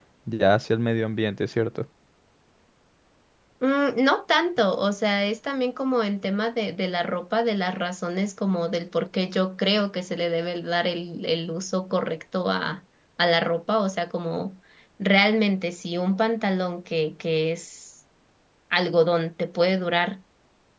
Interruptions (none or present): none